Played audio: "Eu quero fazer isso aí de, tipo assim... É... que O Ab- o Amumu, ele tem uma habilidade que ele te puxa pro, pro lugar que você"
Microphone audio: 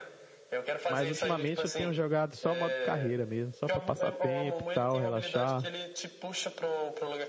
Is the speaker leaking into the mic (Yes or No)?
Yes